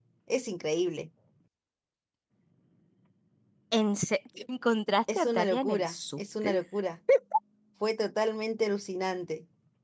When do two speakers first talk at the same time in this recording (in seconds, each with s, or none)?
5.1 s